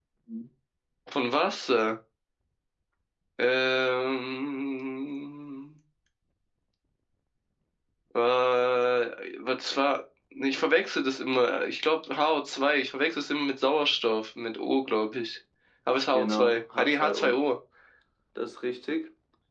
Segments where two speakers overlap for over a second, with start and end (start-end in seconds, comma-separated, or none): 16.1-17.4